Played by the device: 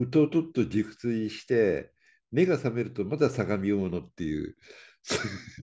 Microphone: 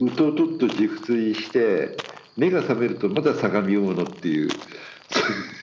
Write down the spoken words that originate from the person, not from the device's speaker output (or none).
none